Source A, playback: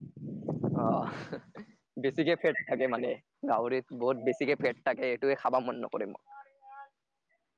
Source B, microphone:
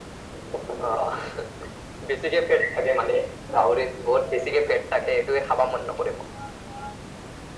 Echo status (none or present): present